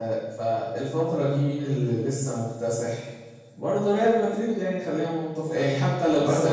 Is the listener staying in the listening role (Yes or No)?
No